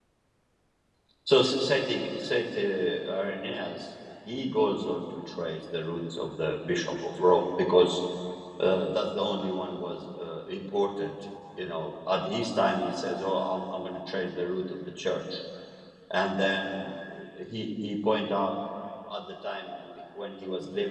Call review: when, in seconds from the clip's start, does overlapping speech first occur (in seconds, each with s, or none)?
none